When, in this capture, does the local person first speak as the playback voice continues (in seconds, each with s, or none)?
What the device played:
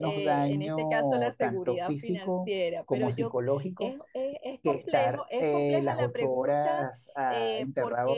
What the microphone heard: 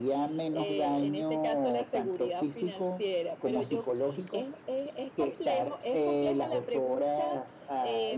none